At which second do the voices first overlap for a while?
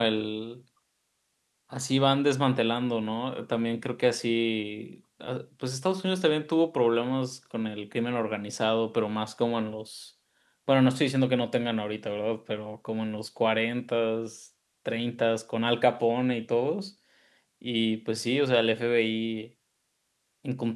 none

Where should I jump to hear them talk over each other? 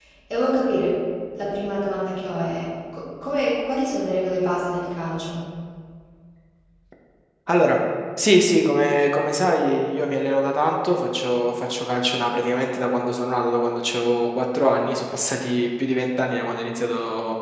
none

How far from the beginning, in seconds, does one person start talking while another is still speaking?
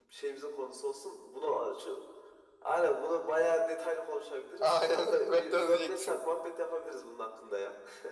4.6 s

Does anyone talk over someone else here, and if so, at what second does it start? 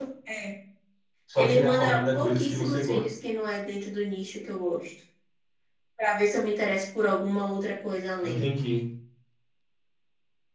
1.4 s

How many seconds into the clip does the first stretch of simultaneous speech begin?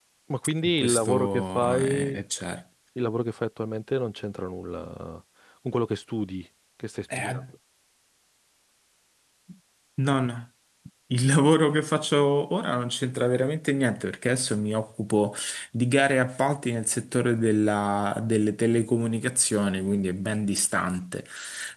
0.8 s

